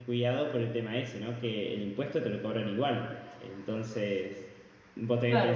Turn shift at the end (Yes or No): Yes